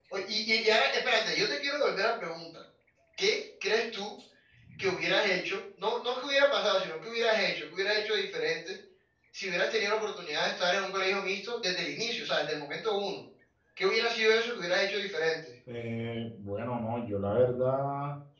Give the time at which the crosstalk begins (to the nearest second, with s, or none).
none